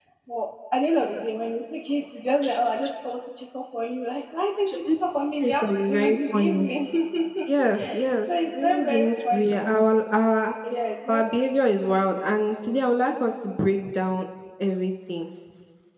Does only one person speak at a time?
No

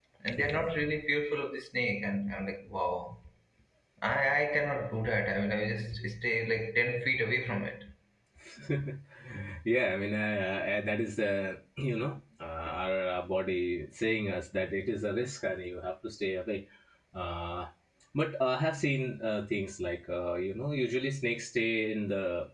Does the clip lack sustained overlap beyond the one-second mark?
Yes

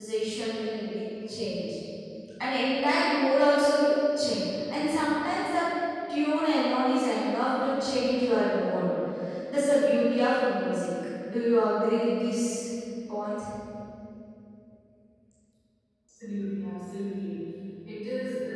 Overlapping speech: No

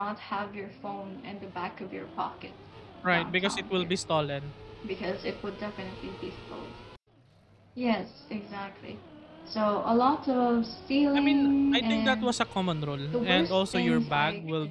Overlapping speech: Yes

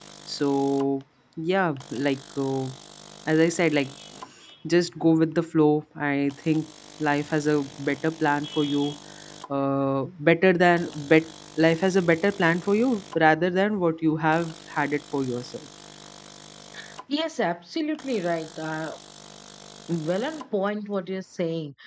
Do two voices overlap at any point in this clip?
No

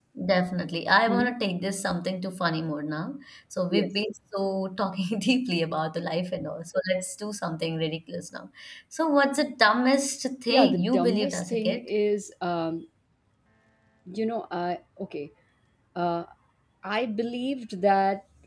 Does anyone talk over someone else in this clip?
Yes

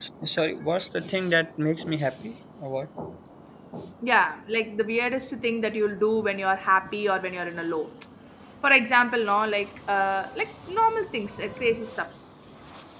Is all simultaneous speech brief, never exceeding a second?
Yes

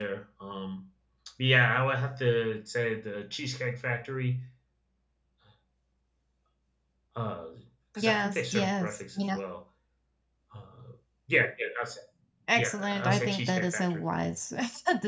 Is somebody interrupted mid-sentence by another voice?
Yes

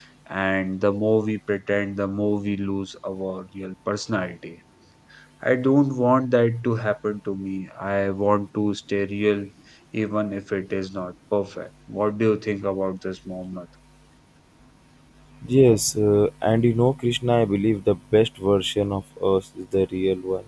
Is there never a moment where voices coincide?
Yes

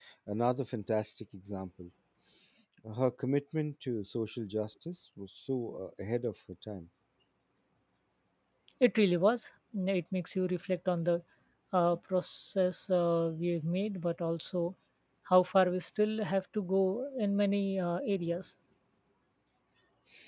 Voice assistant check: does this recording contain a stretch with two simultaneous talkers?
No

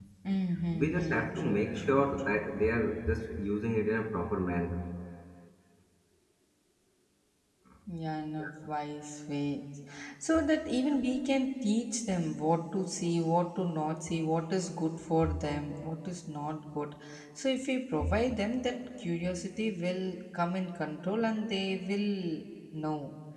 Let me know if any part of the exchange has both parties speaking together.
Yes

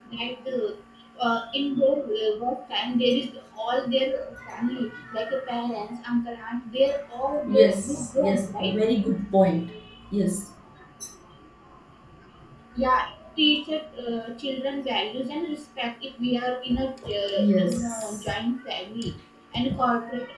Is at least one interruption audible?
Yes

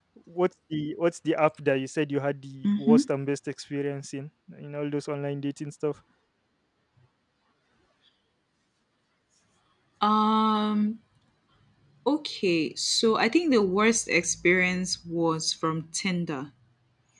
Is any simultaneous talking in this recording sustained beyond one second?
No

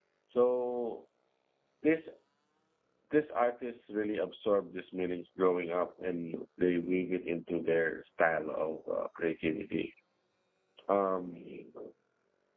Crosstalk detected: No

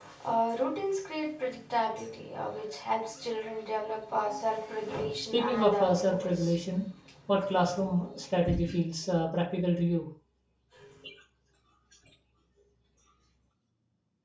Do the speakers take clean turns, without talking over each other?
No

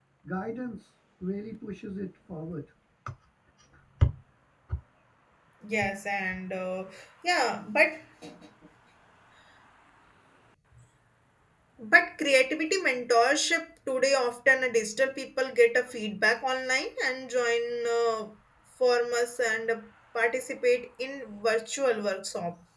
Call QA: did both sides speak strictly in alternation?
Yes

